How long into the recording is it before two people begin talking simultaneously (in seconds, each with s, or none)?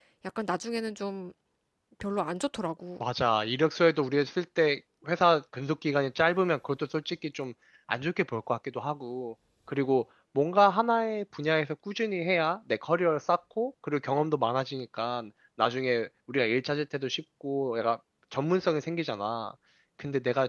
none